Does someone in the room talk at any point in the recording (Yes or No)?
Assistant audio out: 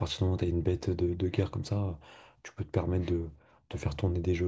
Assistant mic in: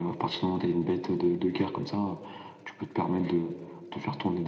No